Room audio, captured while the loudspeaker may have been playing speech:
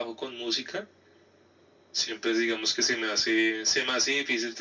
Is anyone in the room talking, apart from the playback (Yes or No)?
No